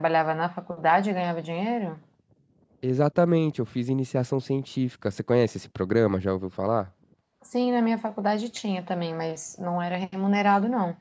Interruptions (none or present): none